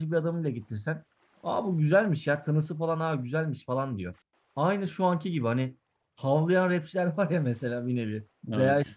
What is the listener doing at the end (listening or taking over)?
listening